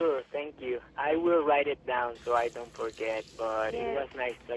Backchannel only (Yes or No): No